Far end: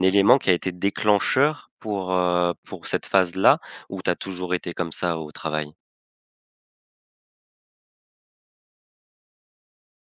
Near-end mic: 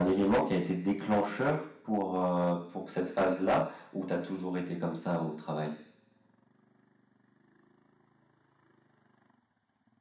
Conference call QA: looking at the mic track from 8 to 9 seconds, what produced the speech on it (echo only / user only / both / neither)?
neither